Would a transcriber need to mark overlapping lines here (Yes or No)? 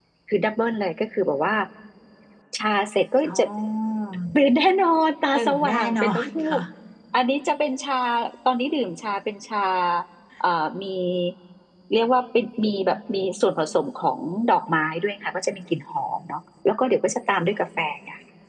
Yes